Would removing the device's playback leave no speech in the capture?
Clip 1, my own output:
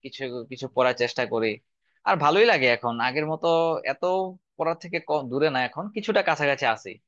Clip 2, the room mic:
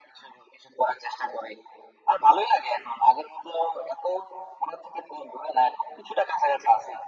Yes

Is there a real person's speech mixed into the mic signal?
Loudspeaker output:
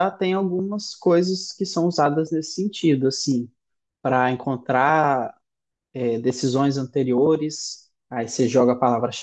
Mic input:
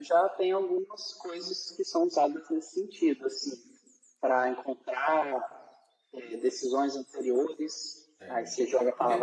Yes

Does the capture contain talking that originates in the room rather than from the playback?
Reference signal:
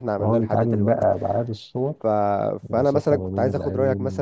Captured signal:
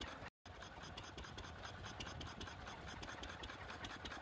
No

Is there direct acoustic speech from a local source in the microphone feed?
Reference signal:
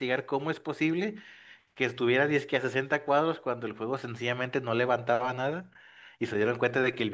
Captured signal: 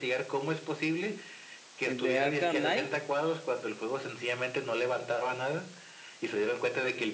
Yes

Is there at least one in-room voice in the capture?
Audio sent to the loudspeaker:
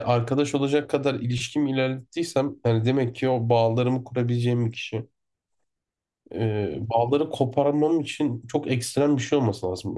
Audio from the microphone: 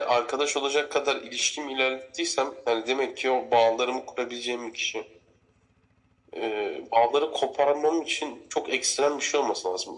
No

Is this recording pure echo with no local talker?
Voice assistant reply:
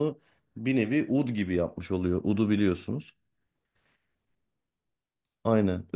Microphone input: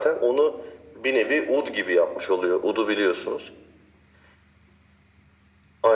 Yes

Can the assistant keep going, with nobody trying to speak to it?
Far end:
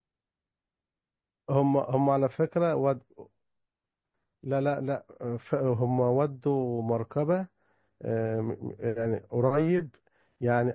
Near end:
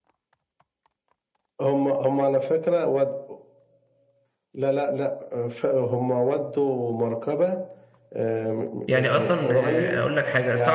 No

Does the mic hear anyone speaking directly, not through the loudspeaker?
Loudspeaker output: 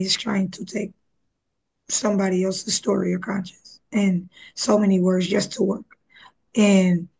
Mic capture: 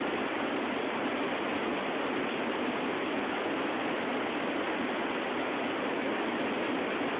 No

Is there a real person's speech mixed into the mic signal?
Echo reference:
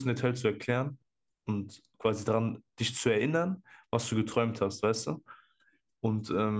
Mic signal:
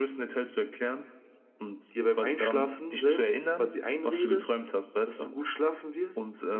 Yes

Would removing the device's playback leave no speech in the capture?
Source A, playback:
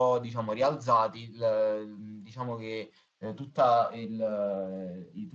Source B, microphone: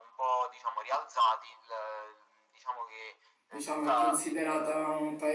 No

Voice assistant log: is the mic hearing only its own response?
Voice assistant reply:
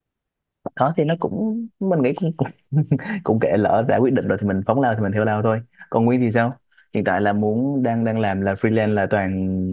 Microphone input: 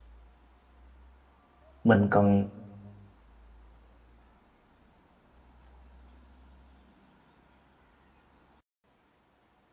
No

